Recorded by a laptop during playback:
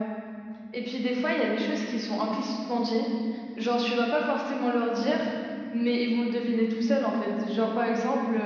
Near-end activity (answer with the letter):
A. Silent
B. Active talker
A